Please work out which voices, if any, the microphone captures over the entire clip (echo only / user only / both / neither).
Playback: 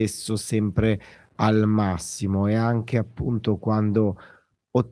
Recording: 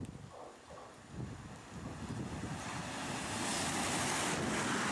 neither